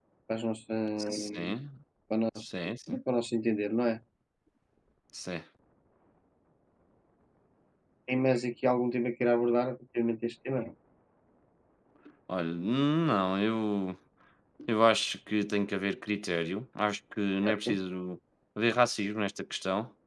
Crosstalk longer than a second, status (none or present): none